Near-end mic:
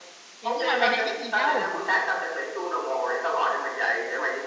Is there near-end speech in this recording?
Yes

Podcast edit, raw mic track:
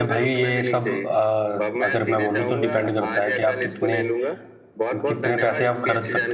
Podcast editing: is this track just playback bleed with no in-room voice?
No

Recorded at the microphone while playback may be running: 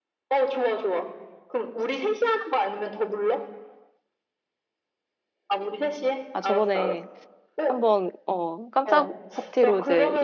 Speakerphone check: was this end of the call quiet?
No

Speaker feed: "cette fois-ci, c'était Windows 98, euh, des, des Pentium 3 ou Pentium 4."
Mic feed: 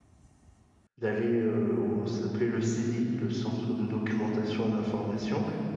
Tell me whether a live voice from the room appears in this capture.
Yes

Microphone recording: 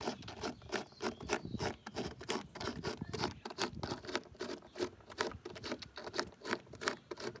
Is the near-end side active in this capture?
No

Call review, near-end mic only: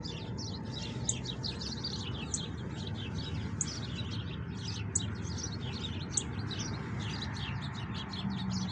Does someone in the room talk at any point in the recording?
No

